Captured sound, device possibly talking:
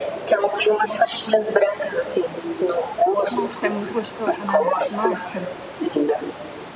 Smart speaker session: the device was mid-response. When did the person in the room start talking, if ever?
3.3 s

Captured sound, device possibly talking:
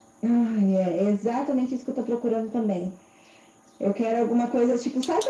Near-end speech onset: none

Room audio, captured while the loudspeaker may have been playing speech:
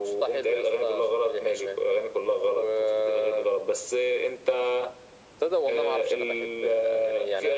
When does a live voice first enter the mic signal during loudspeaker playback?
none

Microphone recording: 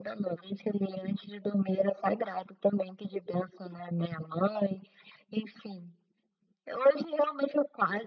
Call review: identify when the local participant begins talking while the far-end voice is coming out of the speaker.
none

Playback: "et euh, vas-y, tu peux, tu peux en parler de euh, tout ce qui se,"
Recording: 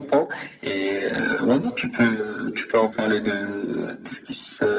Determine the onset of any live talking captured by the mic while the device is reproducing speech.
none

